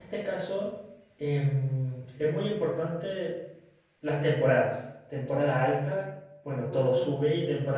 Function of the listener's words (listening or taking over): listening